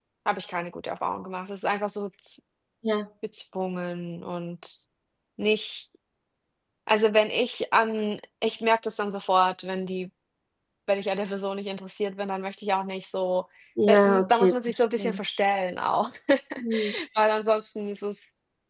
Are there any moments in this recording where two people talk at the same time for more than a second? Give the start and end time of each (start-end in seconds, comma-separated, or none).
13.9-15.2